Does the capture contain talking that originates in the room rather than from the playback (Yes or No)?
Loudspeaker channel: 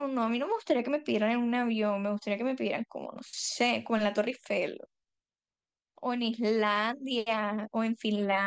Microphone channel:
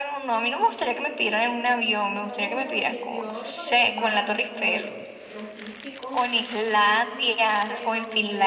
Yes